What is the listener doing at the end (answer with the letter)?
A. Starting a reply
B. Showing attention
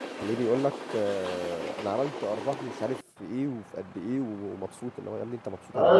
A